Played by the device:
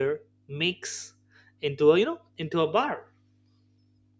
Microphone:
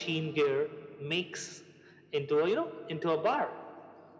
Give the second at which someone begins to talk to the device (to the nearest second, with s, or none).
none